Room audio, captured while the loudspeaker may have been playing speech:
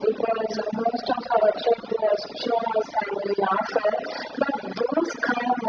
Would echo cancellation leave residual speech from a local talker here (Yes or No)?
No